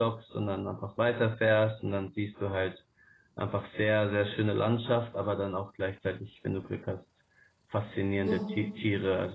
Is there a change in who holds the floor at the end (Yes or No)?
No